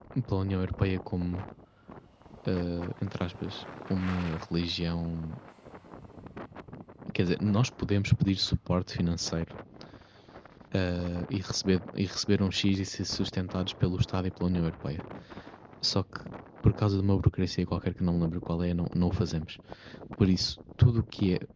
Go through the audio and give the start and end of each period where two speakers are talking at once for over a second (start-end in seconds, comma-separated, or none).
none